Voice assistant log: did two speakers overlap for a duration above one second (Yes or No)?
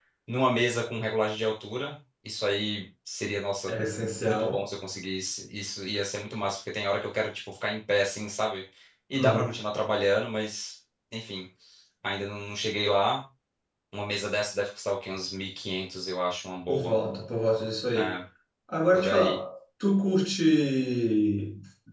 No